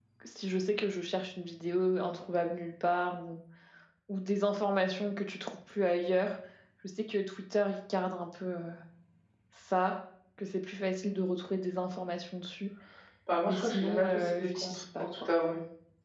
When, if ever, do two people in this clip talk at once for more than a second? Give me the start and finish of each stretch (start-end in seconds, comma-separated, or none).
13.4-15.3